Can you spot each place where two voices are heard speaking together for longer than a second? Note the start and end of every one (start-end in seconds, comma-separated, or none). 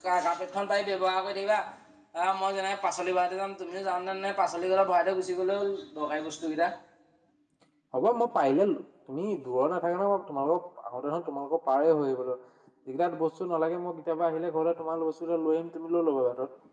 none